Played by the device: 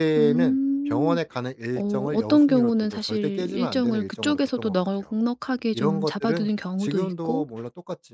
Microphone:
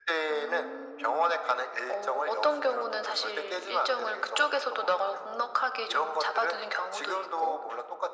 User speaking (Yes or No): No